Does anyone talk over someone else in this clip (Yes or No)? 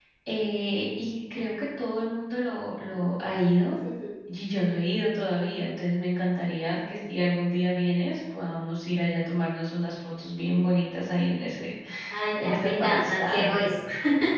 Yes